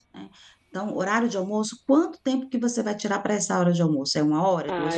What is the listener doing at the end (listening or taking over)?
taking over